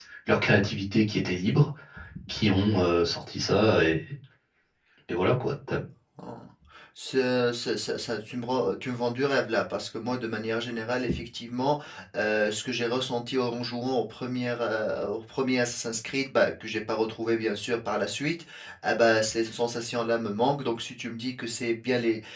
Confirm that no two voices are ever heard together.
Yes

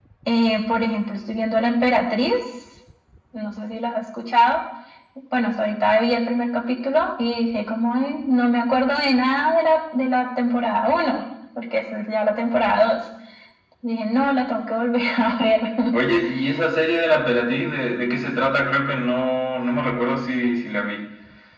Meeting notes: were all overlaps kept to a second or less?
Yes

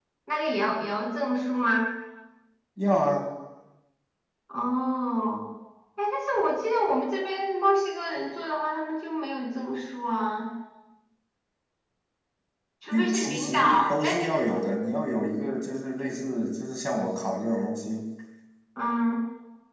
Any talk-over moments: Yes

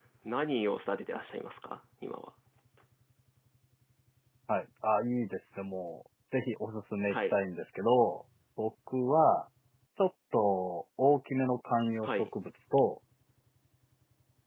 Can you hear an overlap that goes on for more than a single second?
No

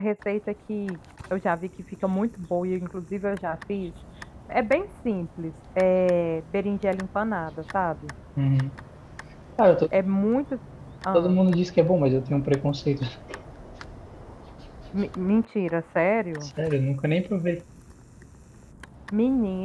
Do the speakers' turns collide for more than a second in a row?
No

